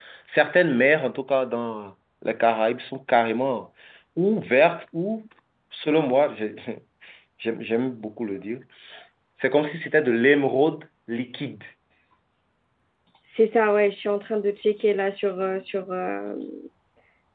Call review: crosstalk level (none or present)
none